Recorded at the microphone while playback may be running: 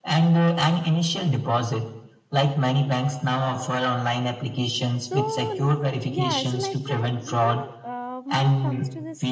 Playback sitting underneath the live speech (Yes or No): No